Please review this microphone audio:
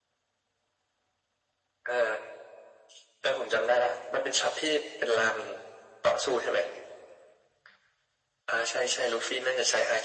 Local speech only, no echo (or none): none